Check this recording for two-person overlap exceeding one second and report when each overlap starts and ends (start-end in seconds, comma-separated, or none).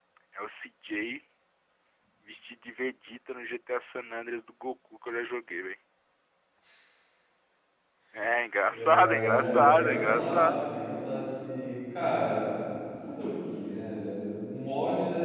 8.7-10.7